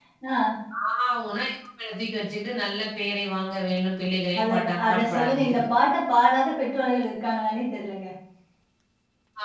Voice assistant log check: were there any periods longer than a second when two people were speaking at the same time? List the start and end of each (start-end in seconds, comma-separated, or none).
4.4-5.6